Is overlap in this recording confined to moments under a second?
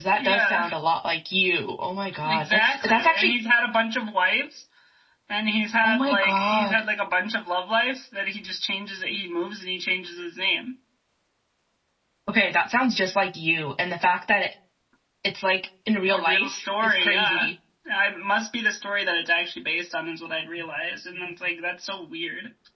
No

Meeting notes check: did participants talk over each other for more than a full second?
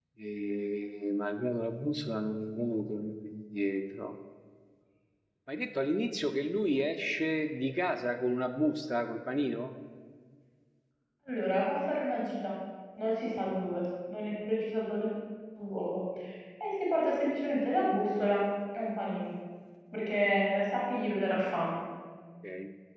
No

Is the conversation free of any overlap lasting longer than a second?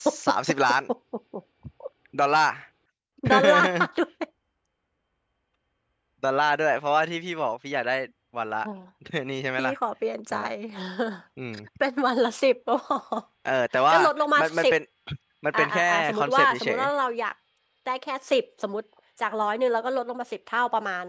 No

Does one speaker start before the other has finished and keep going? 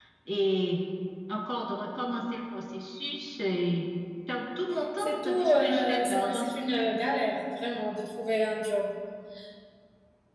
Yes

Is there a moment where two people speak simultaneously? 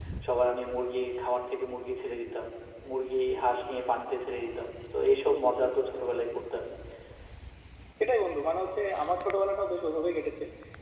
No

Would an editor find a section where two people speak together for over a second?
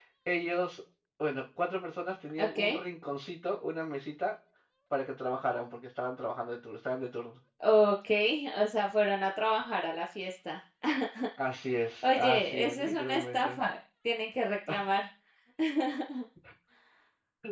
Yes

